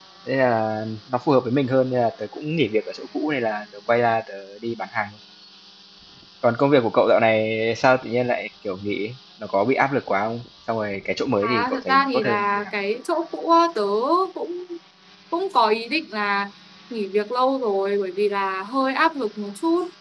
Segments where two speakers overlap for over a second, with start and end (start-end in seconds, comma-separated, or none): 11.4-12.7